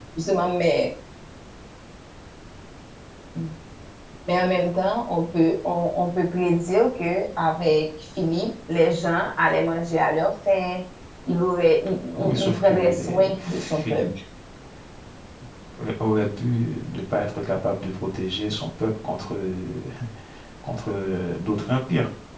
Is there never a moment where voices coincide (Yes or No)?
No